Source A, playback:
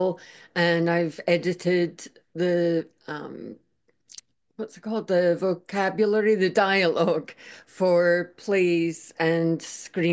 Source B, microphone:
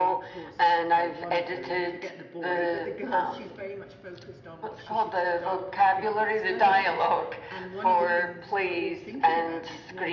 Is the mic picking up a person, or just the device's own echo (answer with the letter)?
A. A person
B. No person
A